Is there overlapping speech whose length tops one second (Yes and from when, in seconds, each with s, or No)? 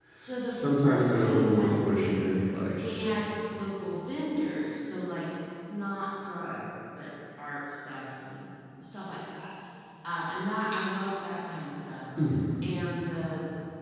Yes, from 0.5 s